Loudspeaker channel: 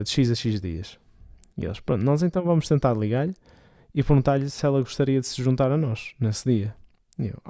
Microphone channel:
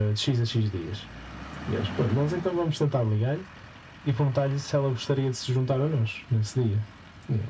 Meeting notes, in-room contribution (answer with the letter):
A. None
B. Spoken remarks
A